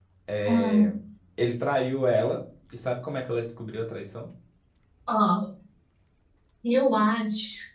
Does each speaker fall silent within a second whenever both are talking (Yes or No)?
Yes